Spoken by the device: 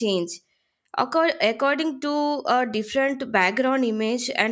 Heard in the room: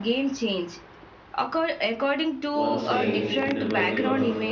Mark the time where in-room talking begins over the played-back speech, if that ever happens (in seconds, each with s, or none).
2.5 s